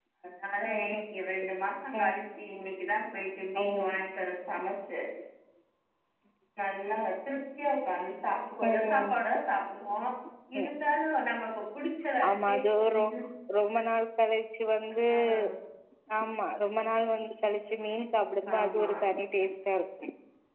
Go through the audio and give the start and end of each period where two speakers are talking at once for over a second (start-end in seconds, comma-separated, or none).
none